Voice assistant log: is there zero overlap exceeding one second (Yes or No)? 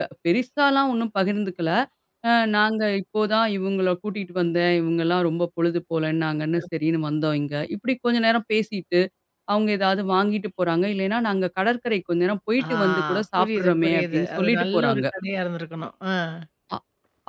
No